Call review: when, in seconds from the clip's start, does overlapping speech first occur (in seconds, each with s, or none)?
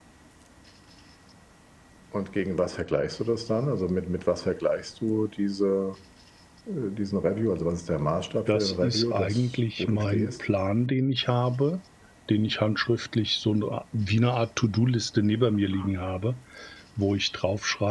8.5 s